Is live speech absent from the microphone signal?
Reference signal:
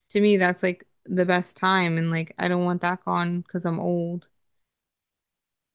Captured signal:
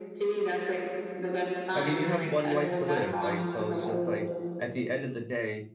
No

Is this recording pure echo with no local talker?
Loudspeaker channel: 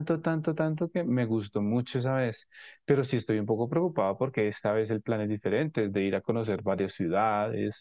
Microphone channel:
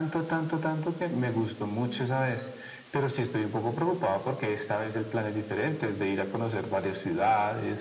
Yes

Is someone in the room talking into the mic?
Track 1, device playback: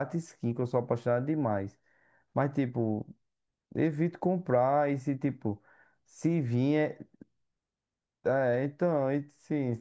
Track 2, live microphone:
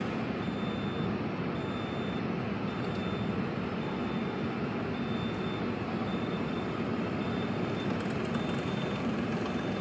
No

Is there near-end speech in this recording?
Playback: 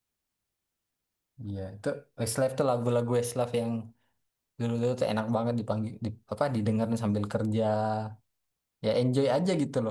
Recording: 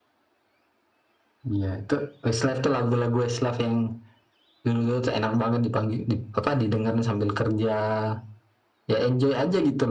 No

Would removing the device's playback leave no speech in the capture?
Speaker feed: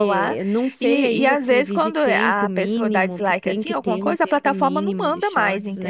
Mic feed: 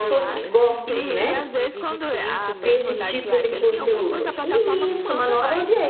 No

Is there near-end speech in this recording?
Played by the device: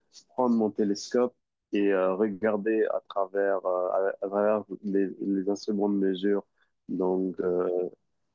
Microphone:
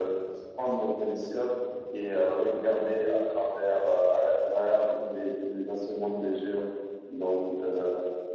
No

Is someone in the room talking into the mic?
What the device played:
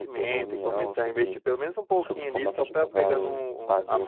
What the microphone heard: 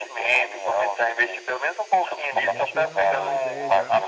Yes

